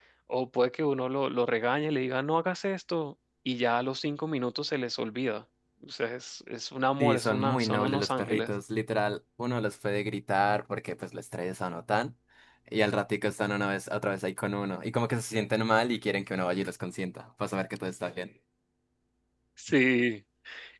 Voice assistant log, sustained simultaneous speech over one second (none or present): present